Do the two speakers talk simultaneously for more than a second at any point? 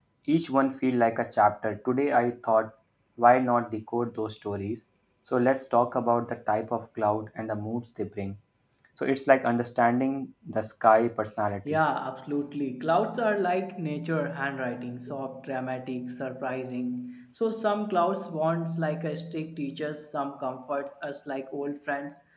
No

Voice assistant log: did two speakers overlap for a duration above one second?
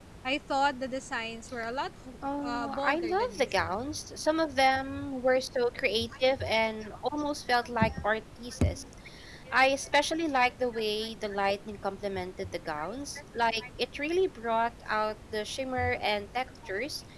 Yes, from 2.4 s

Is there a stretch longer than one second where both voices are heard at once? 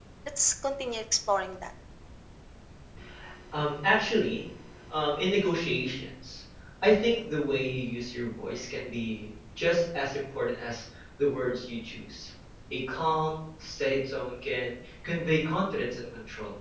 No

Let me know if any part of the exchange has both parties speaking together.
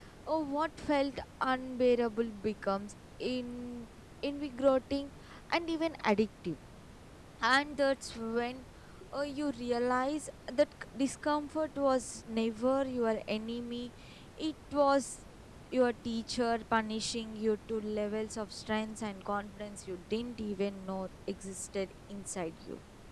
No

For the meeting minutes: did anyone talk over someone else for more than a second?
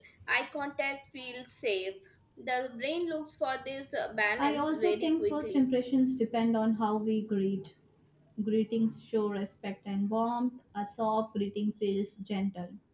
Yes, from 4.4 s

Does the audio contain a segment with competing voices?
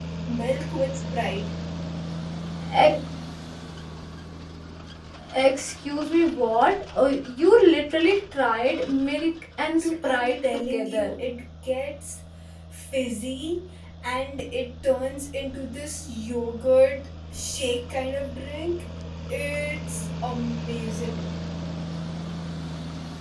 Yes, from 9.8 s

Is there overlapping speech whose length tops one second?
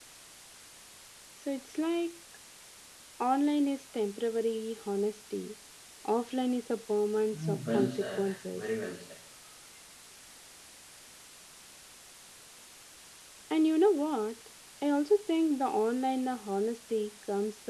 Yes, from 7.3 s

